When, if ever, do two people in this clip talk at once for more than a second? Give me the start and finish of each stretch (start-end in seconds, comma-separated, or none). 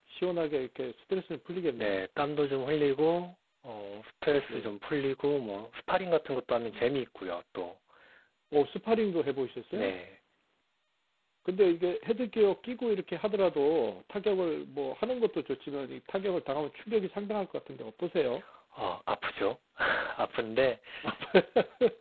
none